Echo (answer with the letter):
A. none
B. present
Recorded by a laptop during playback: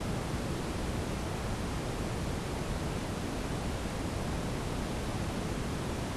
A